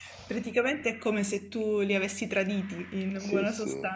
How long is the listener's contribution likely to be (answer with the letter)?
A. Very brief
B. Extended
B